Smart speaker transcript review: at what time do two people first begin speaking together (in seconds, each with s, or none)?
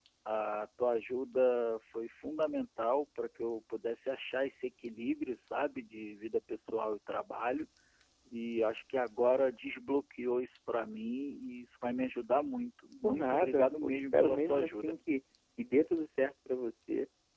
13.0 s